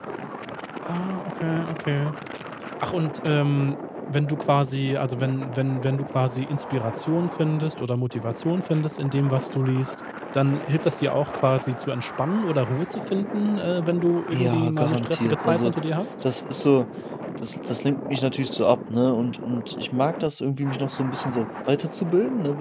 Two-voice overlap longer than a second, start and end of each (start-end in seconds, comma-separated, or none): 14.3-15.7